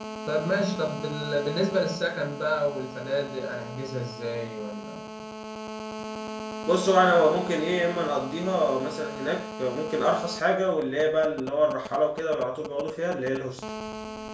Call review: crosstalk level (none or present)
none